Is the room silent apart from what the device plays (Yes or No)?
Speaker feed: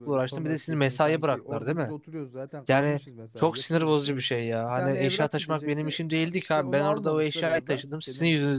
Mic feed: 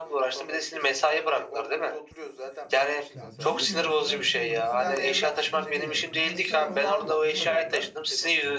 No